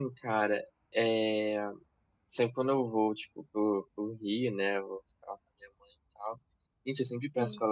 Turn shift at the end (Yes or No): No